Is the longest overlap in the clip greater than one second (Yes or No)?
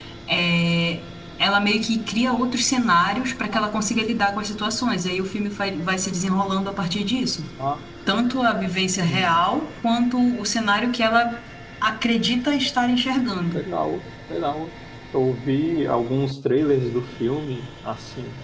No